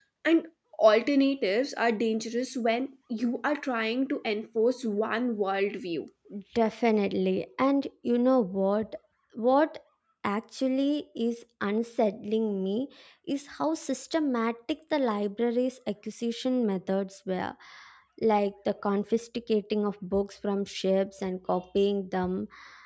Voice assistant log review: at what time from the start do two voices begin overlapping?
none

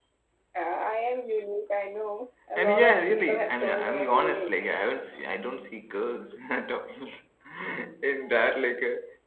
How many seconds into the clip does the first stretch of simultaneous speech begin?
2.6 s

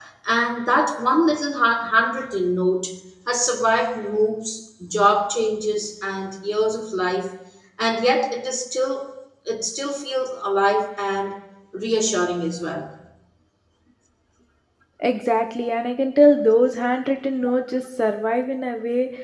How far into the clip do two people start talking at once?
none

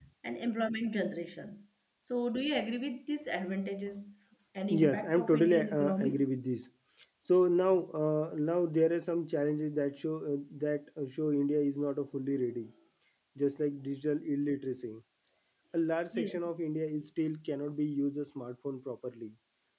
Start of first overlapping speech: 4.7 s

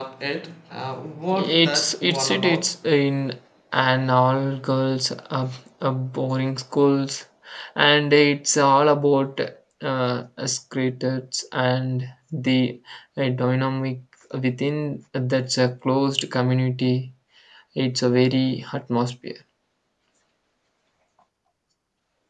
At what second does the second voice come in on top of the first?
1.3 s

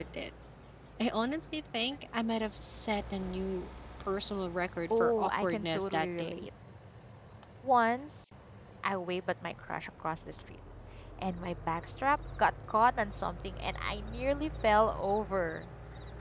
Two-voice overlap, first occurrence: 4.9 s

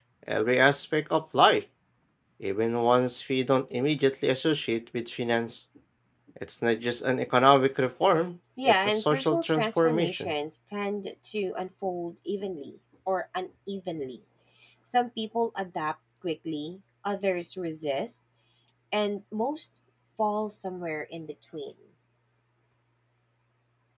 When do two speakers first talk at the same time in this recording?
8.6 s

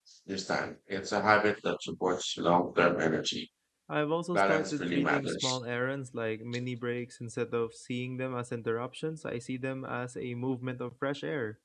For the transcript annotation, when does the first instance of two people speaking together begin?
4.3 s

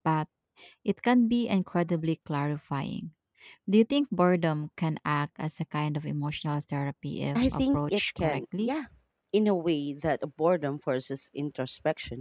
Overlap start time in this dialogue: 7.3 s

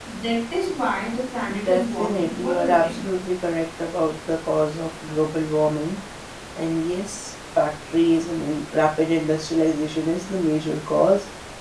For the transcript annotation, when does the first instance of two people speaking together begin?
1.5 s

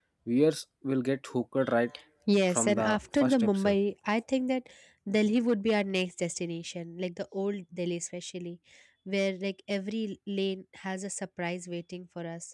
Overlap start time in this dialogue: 2.5 s

